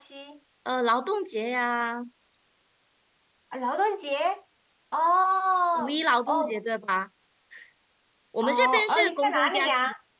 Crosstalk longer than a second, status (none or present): present